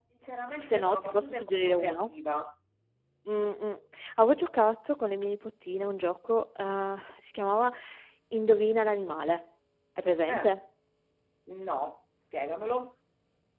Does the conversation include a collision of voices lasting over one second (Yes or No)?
Yes